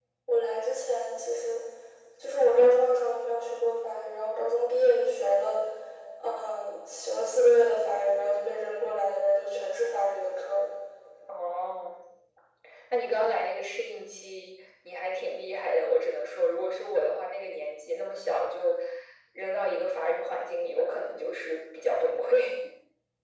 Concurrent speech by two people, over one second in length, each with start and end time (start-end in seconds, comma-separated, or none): none